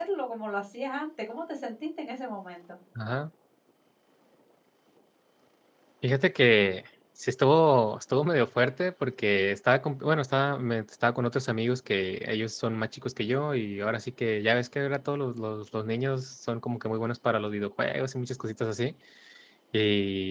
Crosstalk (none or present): none